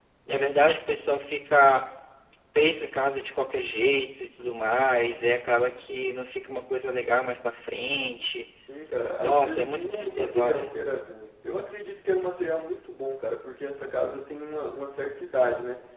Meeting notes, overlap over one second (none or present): present